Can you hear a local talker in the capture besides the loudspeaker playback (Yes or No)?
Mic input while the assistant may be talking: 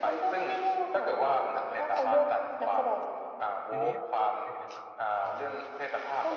Yes